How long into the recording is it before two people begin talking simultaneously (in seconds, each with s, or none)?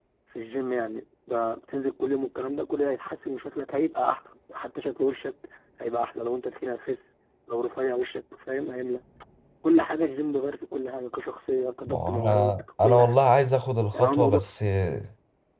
11.9 s